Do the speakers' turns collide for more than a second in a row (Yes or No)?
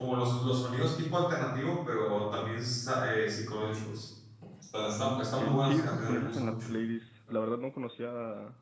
Yes